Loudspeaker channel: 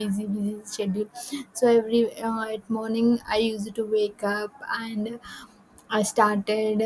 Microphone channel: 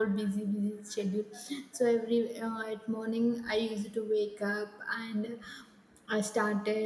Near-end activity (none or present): none